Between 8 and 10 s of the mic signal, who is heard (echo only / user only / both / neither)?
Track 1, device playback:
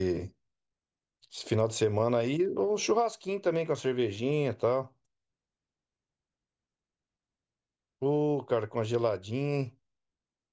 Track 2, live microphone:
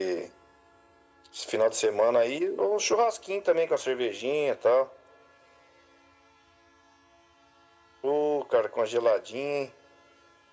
echo only